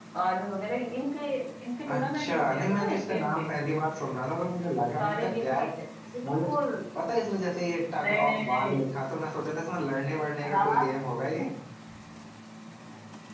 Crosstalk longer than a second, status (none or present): present